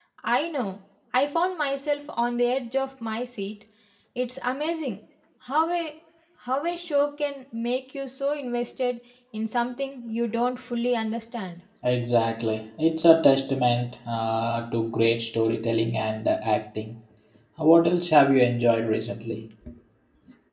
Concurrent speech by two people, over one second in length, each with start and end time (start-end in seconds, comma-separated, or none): none